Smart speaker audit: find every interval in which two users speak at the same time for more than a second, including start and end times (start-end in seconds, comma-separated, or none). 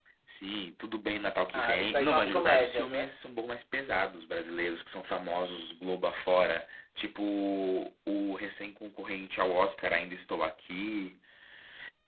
1.5-3.2